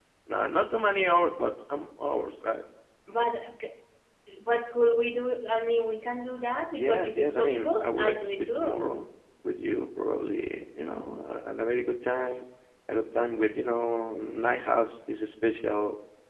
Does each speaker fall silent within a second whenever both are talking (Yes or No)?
No